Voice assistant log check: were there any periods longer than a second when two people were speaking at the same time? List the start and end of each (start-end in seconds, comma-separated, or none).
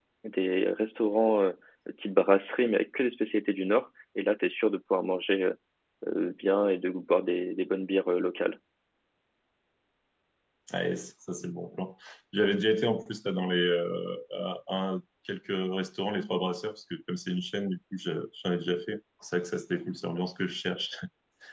none